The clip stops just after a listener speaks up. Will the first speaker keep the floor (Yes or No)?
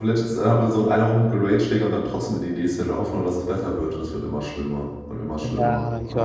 No